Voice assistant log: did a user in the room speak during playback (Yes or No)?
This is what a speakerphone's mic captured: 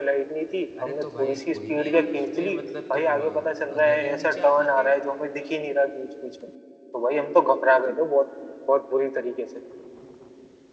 Yes